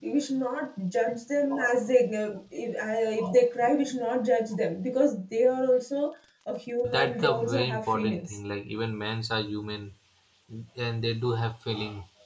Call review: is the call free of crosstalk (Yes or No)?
No